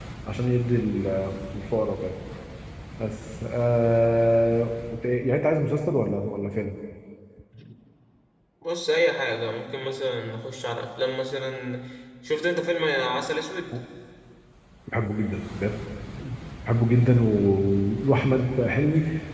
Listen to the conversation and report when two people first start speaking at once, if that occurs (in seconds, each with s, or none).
none